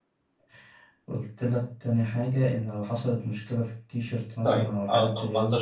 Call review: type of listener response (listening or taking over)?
taking over